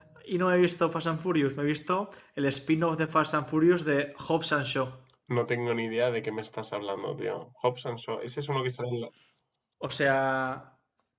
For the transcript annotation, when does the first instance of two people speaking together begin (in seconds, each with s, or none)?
none